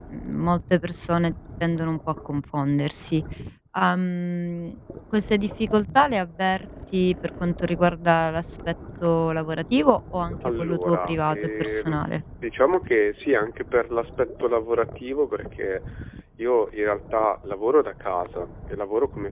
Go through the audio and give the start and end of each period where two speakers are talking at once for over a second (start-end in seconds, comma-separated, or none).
10.6-12.0